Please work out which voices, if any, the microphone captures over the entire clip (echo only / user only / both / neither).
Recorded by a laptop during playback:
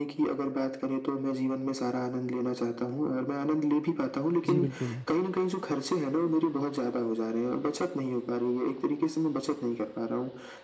both